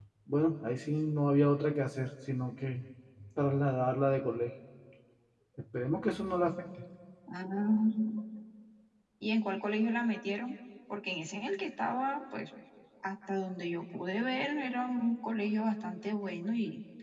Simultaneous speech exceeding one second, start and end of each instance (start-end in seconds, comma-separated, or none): none